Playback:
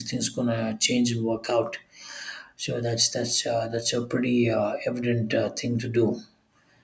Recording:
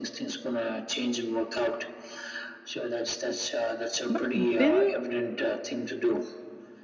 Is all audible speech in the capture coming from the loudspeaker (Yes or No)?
No